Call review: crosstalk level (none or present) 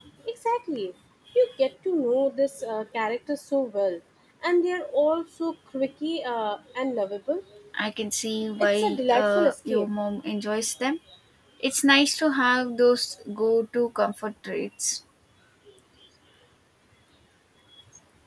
present